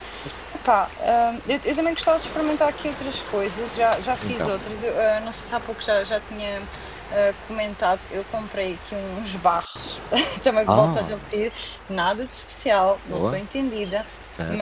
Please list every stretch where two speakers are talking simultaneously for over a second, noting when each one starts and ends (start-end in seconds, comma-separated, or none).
none